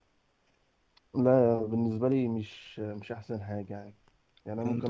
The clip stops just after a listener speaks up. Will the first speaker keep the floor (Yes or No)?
Yes